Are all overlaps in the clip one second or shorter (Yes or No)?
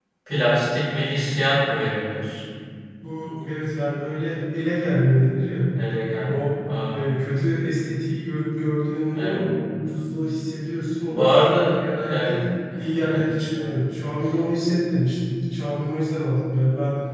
No